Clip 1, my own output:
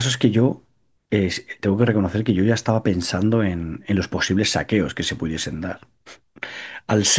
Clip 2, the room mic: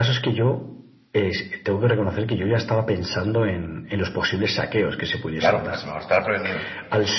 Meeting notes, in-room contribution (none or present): present